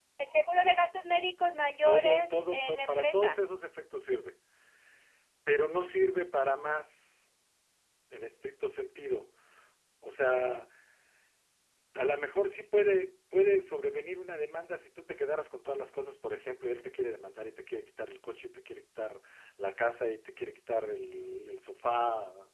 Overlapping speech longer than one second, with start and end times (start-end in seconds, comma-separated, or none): 1.9-3.4